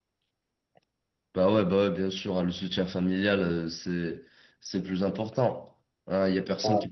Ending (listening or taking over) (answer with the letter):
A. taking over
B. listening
B